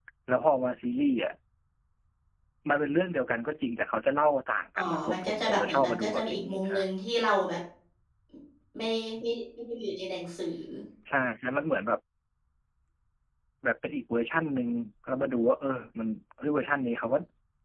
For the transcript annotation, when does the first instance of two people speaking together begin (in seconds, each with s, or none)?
4.8 s